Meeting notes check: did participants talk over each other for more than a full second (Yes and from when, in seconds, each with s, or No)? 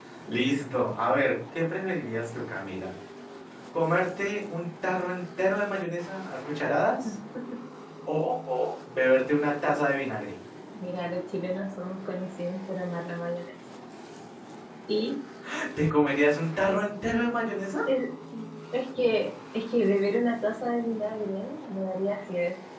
No